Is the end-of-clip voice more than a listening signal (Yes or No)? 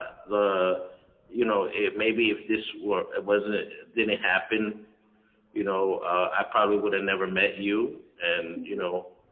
No